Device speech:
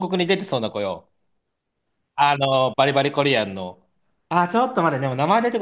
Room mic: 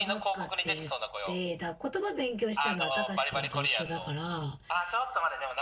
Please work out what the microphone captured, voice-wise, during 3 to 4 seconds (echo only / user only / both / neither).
both